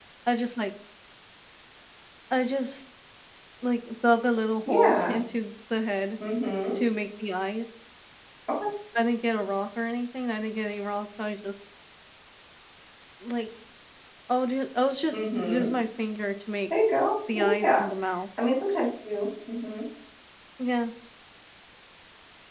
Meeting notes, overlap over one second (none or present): none